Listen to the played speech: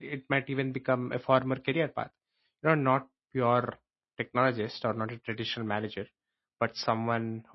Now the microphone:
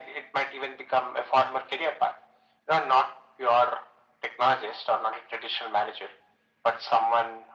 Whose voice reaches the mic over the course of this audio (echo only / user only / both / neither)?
echo only